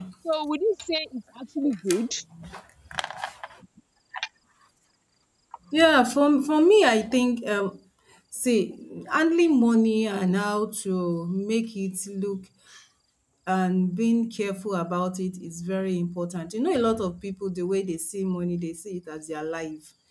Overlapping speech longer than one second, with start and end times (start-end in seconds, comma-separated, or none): none